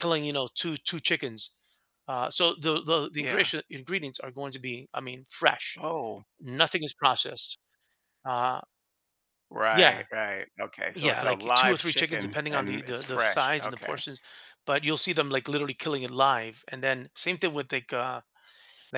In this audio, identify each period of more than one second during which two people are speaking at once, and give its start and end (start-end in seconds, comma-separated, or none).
10.9-14.0